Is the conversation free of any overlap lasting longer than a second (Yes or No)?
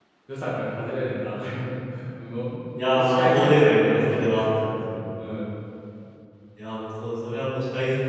No